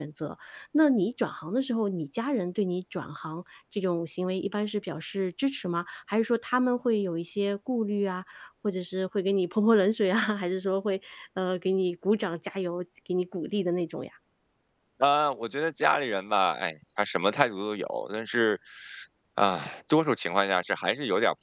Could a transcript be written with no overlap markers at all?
Yes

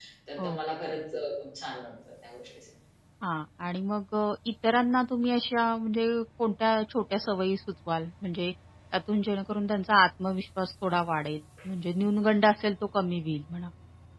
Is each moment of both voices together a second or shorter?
Yes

